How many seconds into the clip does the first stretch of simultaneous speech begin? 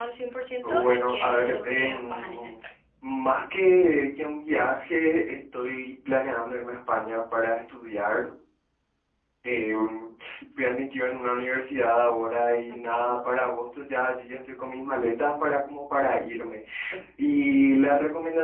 0.6 s

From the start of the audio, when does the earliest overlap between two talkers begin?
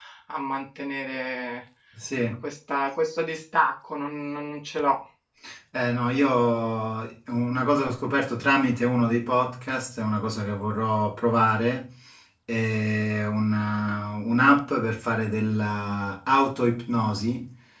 none

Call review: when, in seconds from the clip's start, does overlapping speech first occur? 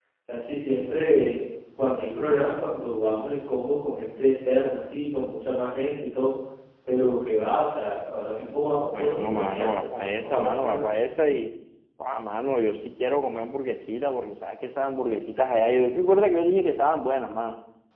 8.9 s

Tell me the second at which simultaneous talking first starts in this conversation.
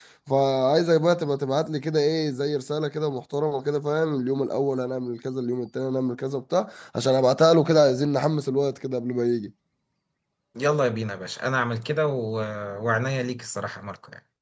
none

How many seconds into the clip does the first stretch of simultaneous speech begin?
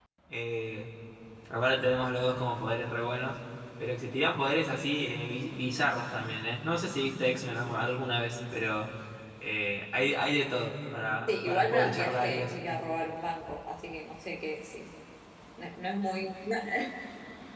11.3 s

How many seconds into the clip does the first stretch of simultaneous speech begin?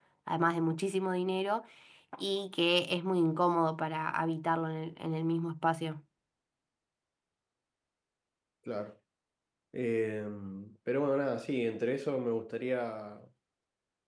none

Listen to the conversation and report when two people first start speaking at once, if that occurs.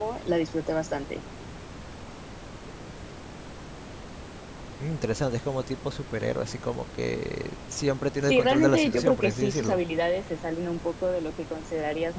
8.3 s

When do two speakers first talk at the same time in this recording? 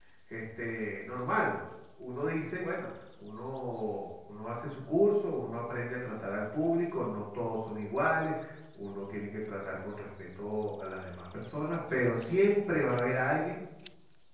none

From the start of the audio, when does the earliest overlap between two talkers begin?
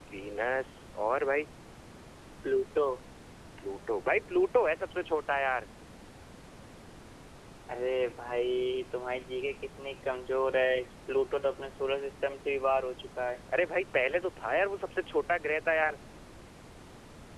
none

